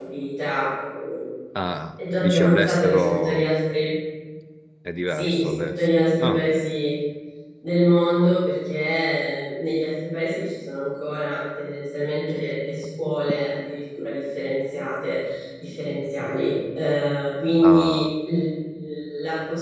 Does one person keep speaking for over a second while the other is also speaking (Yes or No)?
Yes